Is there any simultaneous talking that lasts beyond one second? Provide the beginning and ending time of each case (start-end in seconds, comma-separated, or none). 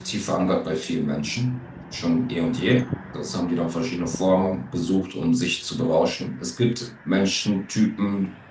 none